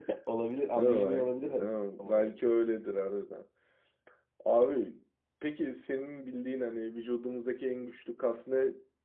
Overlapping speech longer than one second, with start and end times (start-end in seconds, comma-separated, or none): 0.8-2.3